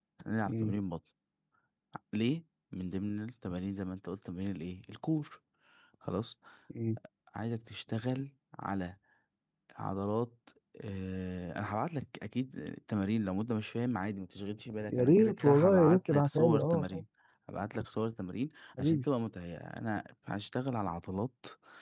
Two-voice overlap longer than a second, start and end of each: 14.9-17.0

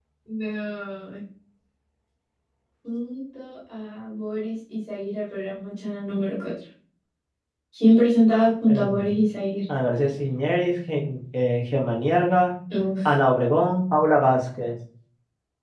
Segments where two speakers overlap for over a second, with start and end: none

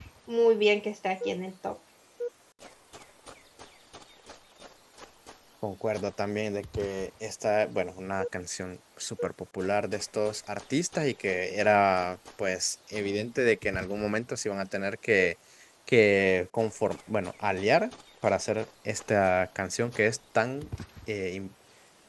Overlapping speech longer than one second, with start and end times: none

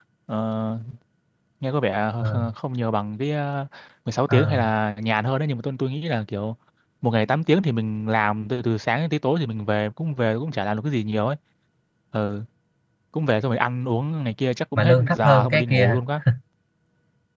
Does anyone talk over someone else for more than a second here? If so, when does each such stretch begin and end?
14.8-16.0

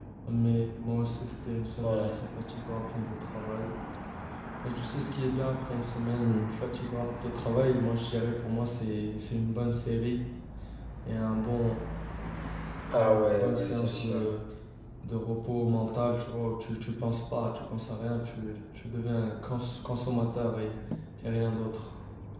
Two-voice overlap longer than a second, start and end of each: 12.9-14.3

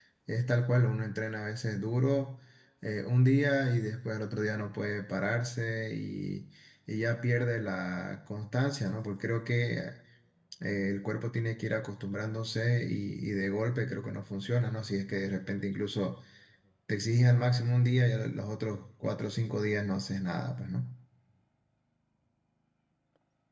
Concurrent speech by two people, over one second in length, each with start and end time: none

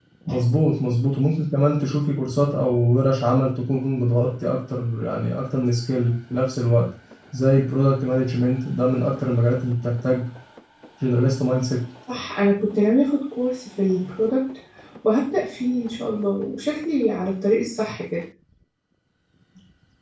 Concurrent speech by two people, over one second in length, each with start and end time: none

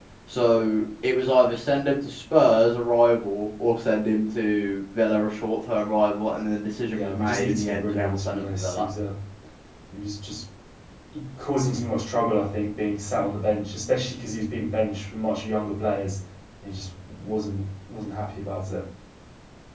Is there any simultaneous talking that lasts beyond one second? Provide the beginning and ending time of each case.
6.9-8.8

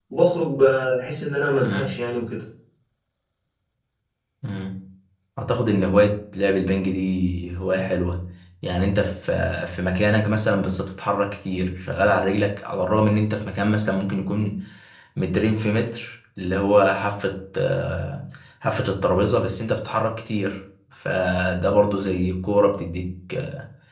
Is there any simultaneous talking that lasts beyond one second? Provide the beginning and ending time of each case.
none

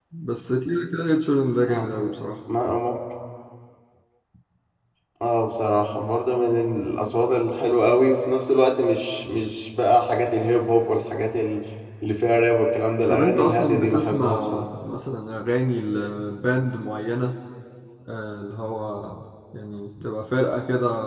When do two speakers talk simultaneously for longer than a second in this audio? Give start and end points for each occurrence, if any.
13.1-14.7

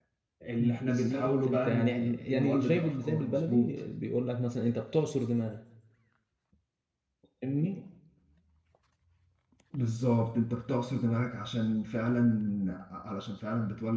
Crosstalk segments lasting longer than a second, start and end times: 0.6-3.8

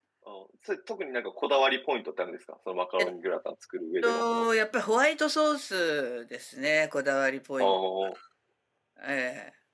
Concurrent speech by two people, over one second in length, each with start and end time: none

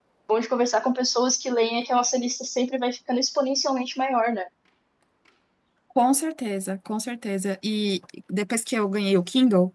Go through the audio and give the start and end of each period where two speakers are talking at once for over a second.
none

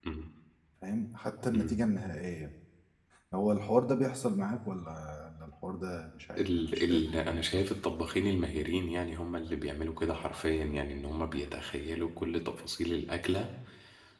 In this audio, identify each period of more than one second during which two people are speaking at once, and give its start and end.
6.4-8.2

